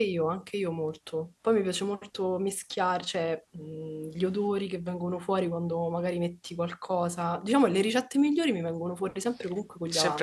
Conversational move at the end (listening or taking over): taking over